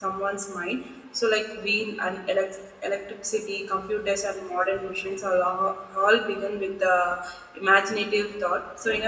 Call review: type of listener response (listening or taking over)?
listening